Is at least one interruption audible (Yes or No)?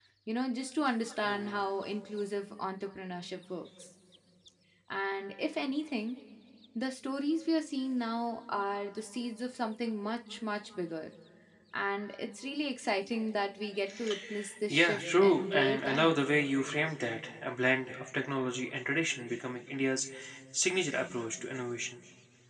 Yes